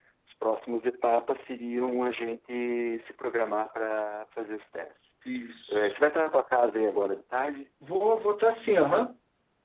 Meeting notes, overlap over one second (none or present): none